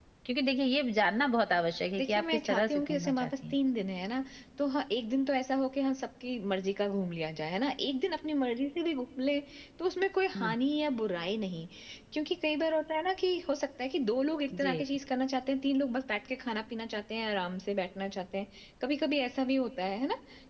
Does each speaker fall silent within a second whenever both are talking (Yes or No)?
No